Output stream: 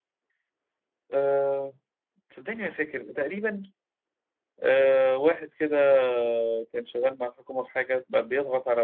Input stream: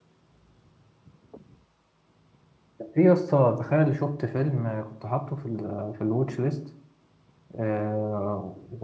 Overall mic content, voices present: user only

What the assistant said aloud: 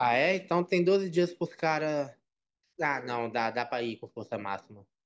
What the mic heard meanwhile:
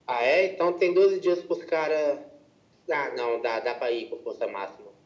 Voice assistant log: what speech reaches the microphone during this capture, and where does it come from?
echo only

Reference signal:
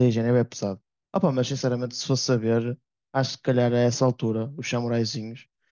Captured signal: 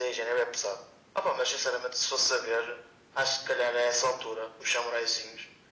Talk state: echo only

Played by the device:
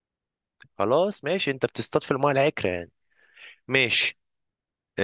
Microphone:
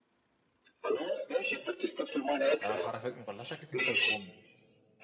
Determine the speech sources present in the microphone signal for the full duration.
both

